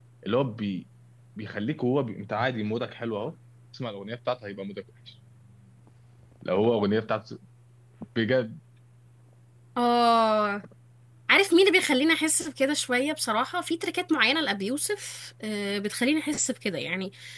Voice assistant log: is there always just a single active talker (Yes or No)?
Yes